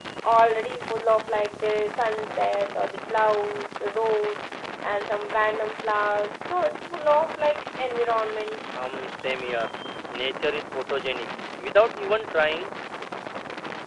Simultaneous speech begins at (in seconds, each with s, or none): none